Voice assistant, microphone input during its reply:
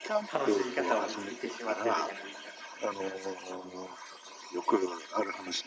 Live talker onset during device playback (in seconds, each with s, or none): 0.3 s